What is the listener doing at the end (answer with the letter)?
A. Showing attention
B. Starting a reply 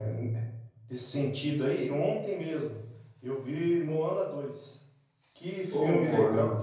A